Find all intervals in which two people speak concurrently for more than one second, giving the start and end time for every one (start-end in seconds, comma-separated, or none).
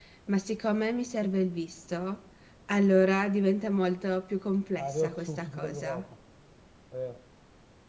4.8-6.0